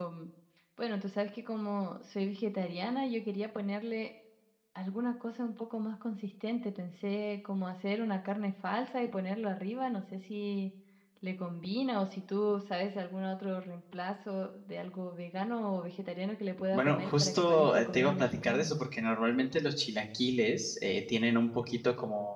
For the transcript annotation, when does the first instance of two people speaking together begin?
16.7 s

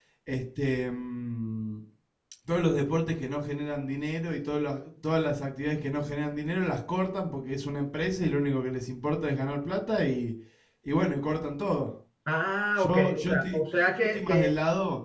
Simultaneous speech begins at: 12.8 s

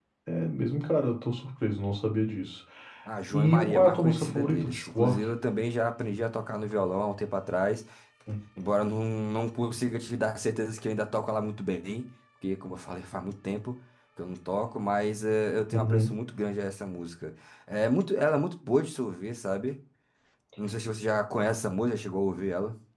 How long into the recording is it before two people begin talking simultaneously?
3.3 s

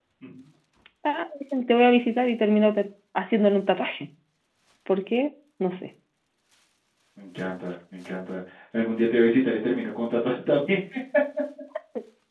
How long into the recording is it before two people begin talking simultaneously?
none

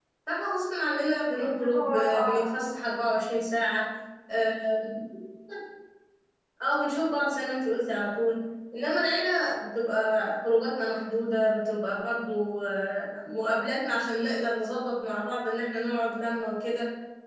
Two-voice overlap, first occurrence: 1.3 s

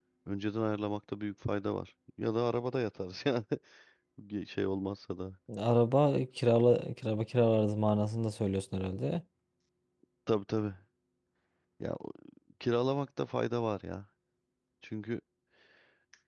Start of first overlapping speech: none

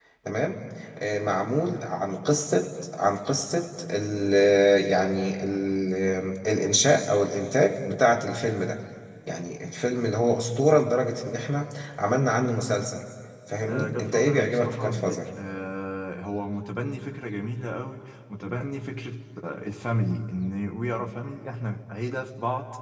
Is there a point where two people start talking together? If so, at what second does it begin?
13.7 s

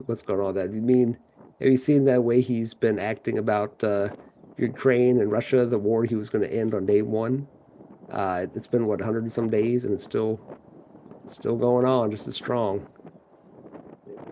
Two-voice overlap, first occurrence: none

